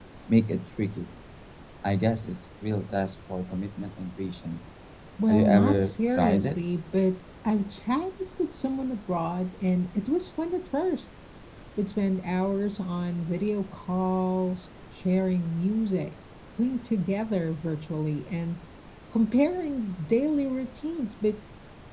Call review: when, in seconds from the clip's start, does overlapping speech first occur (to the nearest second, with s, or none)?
5 s